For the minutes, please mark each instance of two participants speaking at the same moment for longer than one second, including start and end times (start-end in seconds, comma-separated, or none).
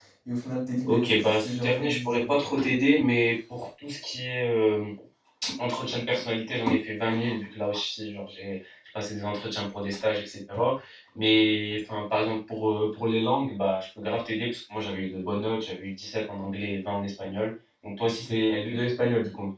0.8-2.4